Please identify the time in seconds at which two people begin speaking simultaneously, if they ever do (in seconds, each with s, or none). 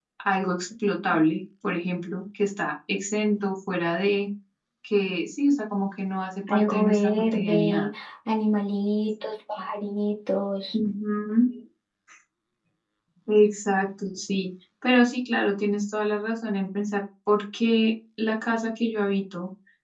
6.5 s